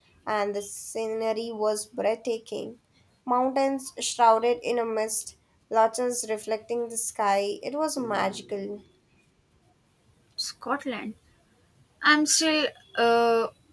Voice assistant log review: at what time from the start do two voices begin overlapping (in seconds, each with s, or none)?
none